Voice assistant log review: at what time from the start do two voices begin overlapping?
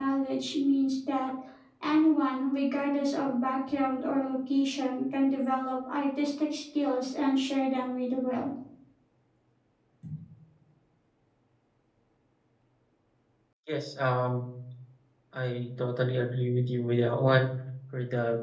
none

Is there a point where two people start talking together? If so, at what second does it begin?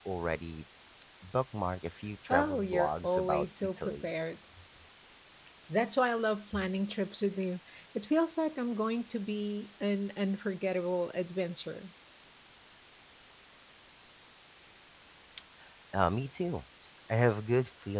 2 s

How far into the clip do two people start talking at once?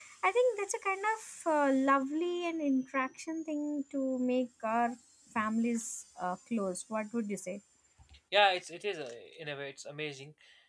none

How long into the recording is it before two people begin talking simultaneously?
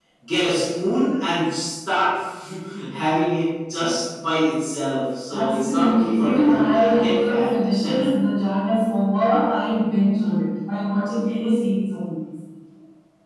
5 s

